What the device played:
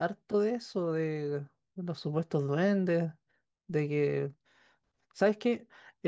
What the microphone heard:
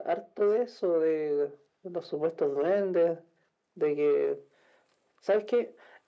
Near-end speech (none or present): none